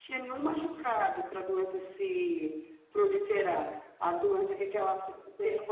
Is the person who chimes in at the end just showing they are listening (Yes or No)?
Yes